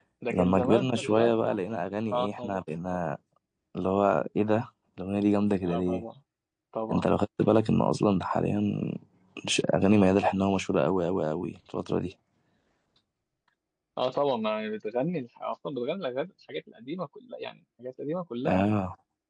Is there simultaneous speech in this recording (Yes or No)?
Yes